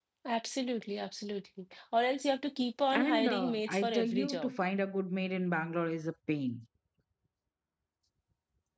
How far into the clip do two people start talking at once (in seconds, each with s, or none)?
2.9 s